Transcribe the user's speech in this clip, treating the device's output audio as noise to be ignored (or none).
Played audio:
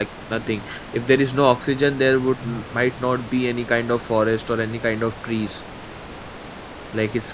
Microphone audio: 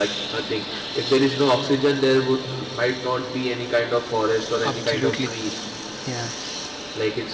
Absolutely. Yeah.